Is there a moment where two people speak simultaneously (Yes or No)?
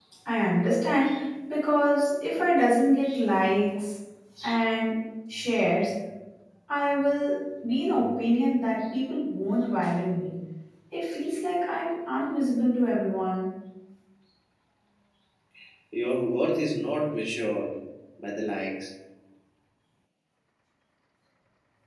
No